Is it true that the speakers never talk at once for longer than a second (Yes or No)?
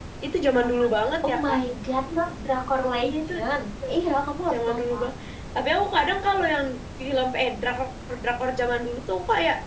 Yes